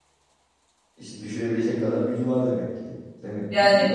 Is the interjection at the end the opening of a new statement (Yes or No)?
Yes